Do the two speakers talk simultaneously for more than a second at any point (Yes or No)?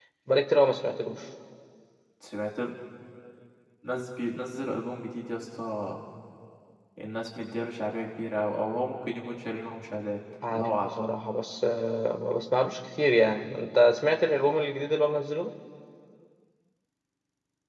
No